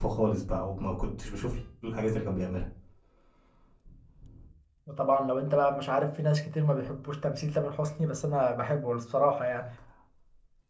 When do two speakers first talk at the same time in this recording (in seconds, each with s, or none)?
none